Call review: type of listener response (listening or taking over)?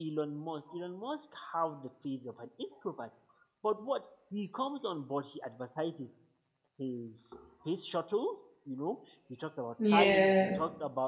listening